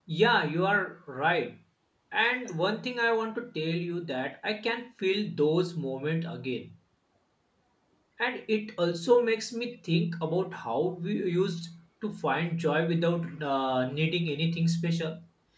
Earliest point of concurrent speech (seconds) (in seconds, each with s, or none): none